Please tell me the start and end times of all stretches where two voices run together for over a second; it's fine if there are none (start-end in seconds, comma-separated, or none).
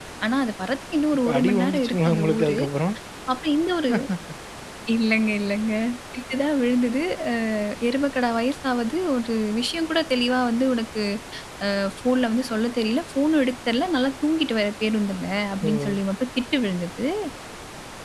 1.2-2.6